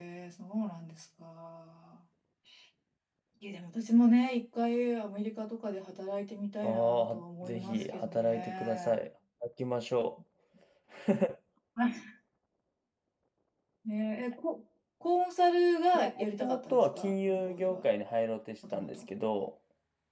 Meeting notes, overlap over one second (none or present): present